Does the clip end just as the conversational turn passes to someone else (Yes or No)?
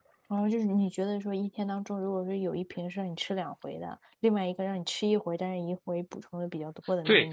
Yes